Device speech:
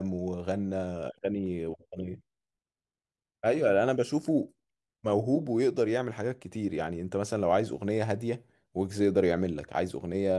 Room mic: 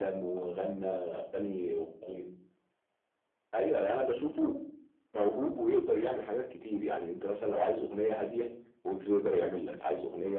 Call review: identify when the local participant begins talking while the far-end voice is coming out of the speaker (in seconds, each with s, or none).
none